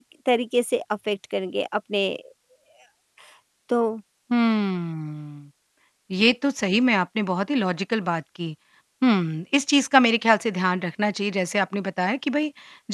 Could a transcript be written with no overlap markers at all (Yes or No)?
Yes